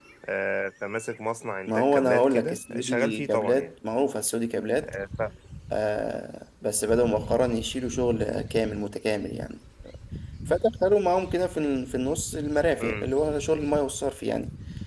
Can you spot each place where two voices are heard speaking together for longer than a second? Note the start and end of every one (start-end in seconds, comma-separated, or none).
1.7-3.7